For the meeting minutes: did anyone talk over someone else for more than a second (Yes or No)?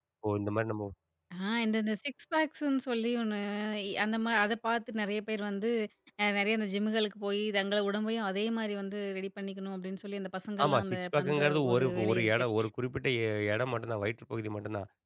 Yes